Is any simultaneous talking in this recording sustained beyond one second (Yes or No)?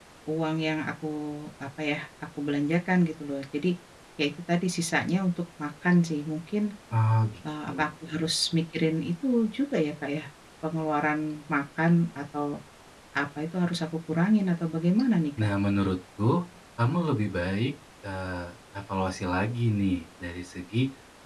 No